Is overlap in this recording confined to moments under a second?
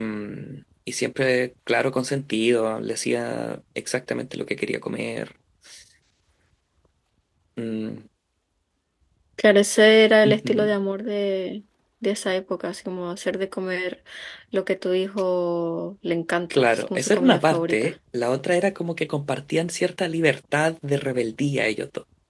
No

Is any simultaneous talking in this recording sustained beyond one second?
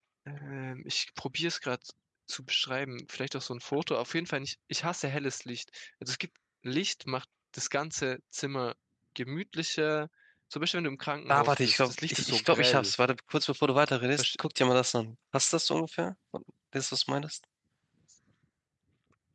Yes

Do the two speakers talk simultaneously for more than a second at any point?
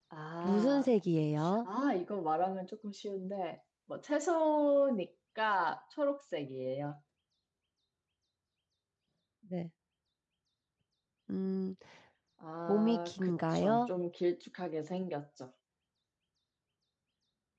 Yes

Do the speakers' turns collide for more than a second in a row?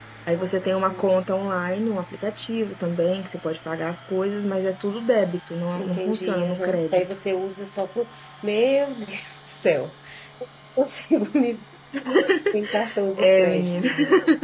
Yes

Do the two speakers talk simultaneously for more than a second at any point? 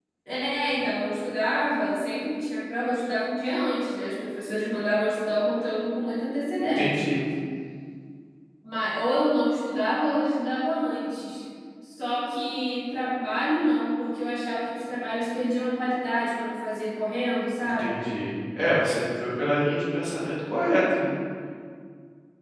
No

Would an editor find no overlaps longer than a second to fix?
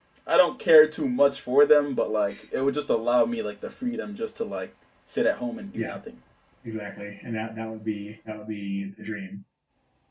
Yes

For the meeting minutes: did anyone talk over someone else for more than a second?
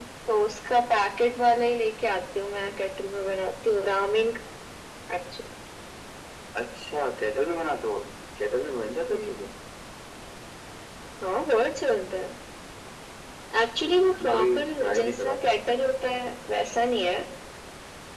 Yes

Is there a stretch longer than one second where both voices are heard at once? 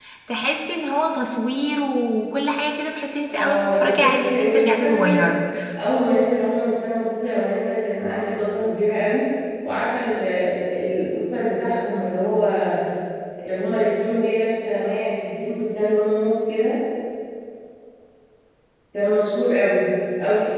Yes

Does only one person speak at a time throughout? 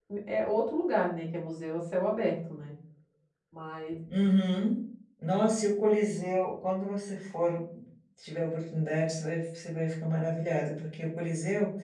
Yes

